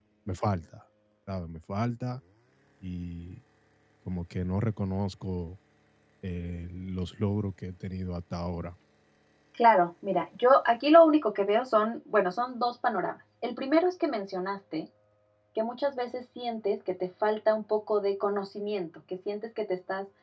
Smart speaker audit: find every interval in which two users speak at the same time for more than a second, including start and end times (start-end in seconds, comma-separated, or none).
none